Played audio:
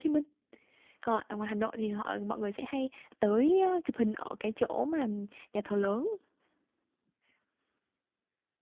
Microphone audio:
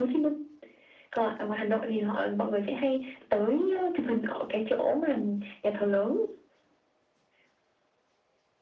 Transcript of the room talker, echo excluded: none

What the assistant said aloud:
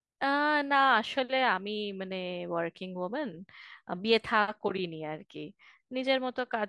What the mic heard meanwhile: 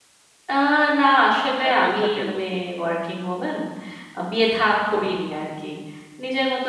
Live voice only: একাই থাকেন নাকি

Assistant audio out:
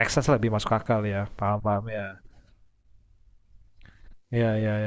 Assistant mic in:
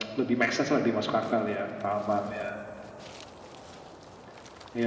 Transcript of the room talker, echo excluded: none

